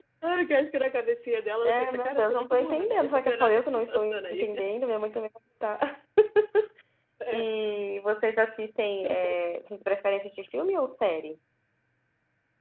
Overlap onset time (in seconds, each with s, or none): 1.6 s